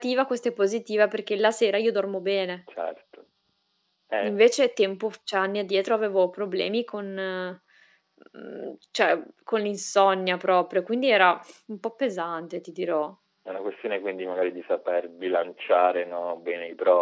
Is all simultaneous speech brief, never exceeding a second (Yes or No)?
Yes